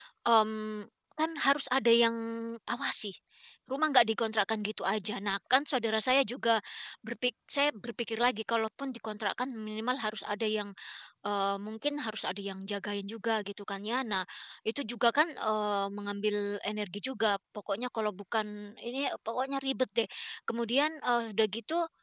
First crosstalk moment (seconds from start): none

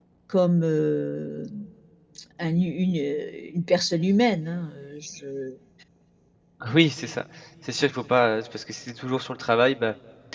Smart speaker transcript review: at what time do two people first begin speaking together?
none

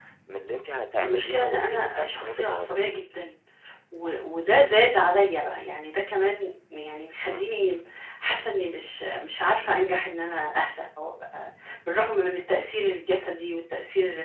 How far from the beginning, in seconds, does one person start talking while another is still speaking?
1.0 s

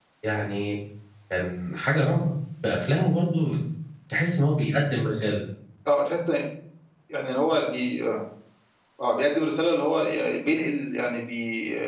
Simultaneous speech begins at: none

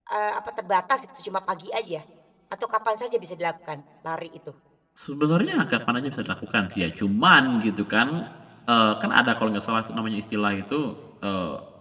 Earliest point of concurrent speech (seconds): none

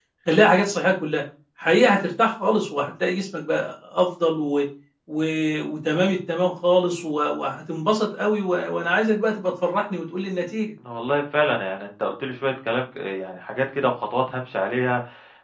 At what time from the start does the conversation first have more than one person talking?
none

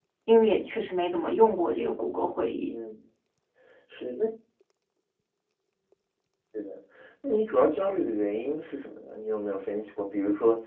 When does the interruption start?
none

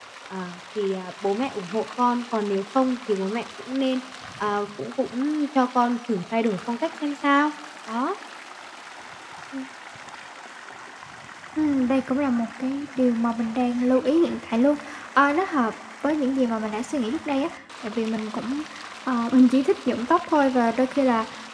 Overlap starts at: none

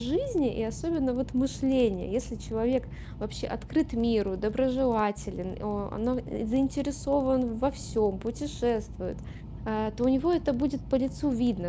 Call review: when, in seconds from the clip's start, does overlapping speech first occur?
none

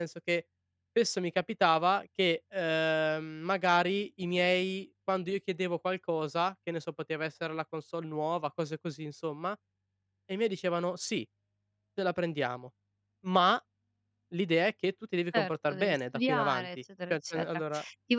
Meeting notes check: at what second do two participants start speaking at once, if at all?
15.3 s

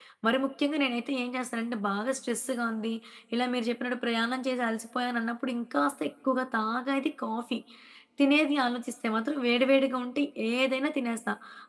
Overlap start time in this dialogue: none

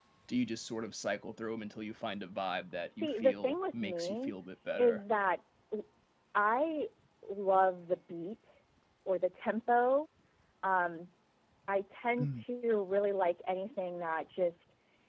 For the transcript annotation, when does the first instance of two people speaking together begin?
3.0 s

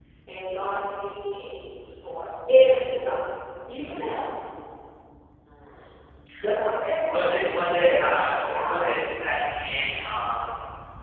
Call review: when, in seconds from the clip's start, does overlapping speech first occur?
7.1 s

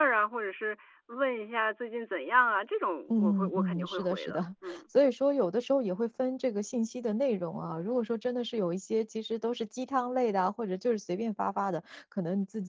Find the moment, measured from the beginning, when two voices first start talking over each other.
3.1 s

